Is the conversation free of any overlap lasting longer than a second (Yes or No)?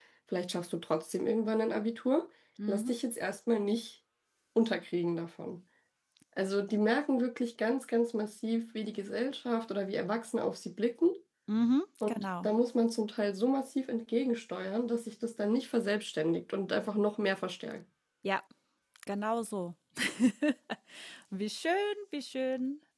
Yes